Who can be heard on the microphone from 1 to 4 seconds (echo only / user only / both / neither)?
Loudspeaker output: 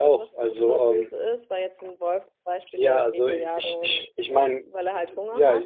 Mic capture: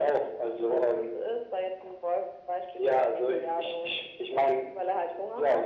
echo only